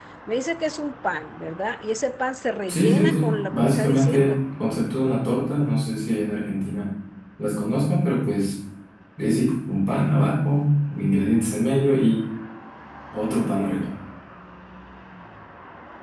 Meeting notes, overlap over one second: present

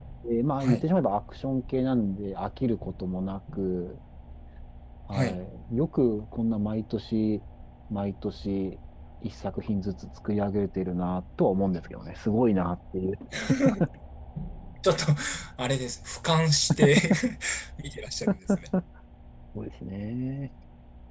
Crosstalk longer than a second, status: none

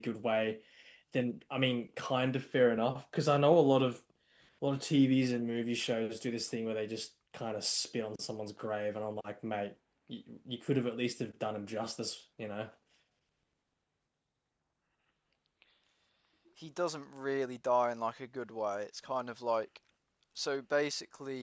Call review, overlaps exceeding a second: none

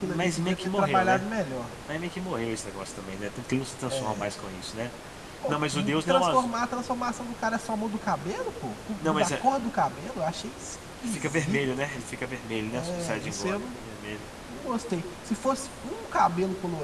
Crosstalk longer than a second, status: present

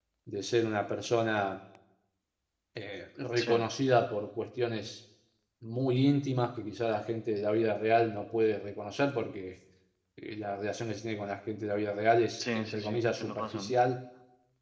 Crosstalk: present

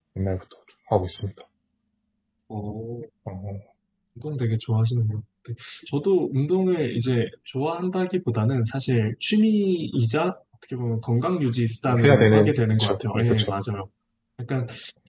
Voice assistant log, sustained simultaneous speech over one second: present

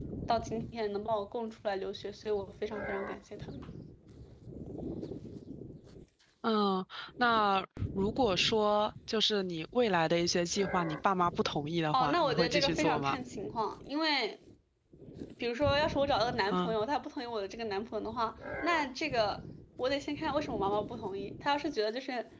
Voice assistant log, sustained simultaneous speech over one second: present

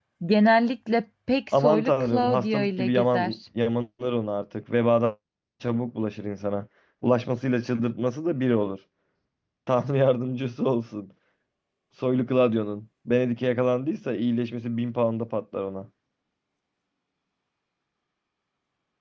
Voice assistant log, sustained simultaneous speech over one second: present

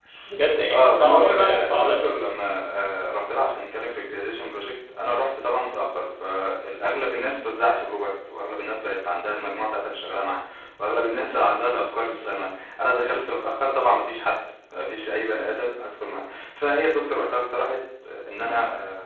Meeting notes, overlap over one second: present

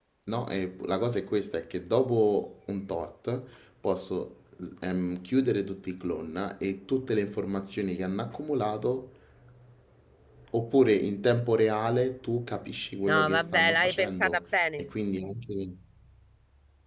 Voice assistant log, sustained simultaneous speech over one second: present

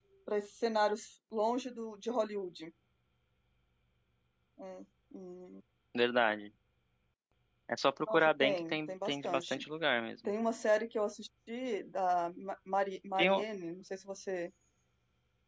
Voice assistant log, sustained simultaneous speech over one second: present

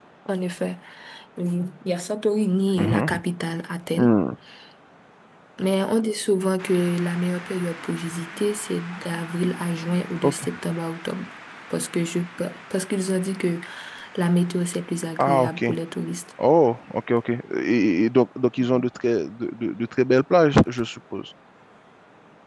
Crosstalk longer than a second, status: none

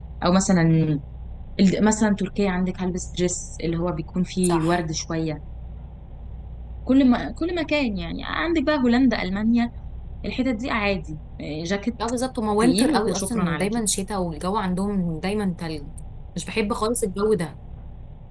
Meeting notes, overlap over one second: present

